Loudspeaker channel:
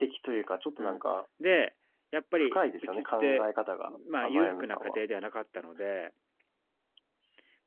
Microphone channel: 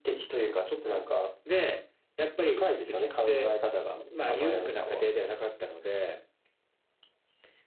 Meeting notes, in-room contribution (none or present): none